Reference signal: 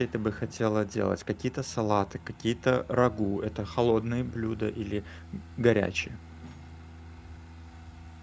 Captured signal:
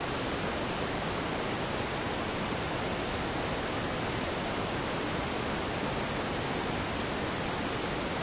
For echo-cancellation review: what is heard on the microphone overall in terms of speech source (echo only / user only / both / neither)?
neither